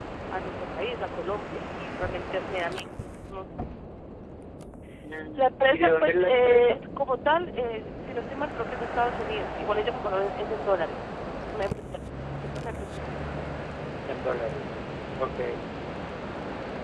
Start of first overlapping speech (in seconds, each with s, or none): 5.4 s